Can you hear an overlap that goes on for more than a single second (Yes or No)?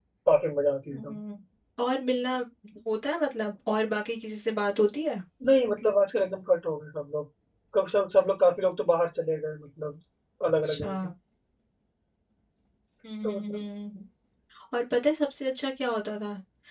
No